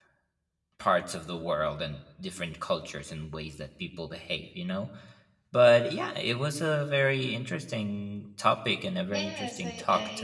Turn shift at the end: Yes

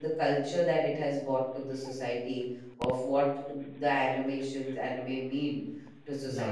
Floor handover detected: Yes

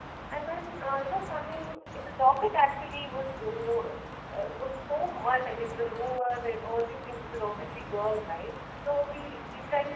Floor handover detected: No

